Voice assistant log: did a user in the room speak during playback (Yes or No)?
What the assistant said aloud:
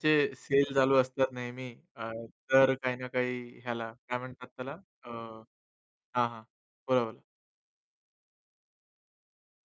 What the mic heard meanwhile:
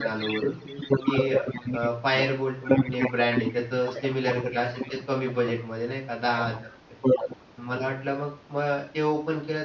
Yes